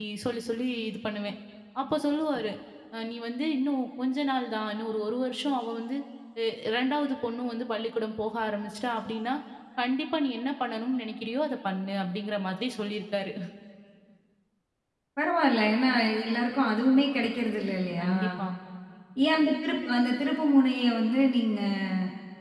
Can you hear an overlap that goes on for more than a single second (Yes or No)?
No